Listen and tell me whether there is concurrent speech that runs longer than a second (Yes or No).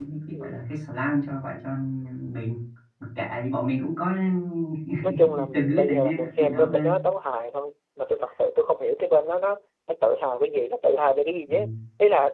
Yes